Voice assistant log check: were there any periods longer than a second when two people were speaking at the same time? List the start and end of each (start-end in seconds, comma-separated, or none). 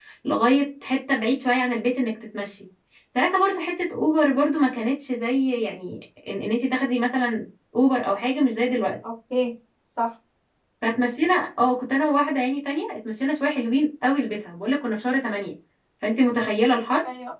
none